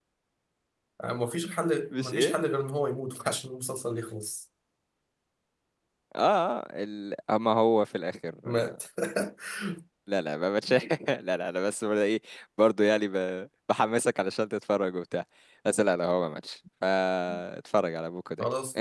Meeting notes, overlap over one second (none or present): none